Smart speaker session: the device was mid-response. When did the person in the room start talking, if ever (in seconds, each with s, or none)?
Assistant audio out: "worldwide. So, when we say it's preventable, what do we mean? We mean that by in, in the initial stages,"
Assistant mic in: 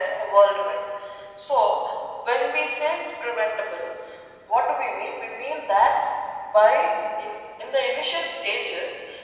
none